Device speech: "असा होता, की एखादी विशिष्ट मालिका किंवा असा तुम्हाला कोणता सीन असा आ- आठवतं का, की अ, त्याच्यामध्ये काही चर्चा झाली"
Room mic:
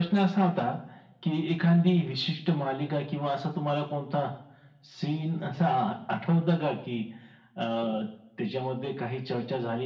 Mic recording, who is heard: echo only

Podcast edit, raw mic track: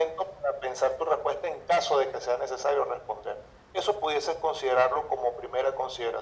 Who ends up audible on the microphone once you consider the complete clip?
echo only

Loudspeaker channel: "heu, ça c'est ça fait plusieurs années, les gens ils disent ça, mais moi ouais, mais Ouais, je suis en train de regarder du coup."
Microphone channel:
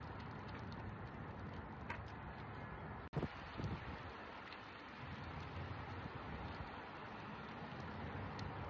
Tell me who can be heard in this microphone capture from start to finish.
neither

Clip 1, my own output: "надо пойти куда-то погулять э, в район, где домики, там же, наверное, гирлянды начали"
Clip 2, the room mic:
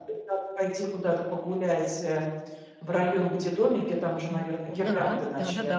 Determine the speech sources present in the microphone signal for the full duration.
both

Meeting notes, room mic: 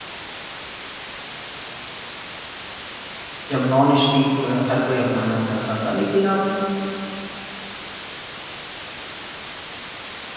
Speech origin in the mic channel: user only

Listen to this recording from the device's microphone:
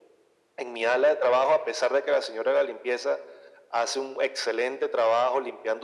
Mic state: echo only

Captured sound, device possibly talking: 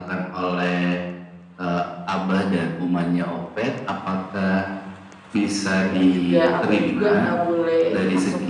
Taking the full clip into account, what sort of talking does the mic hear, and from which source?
both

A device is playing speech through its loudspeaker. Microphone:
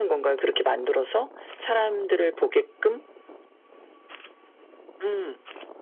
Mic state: echo only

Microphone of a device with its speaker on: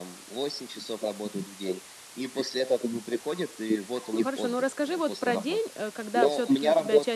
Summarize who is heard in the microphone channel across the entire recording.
both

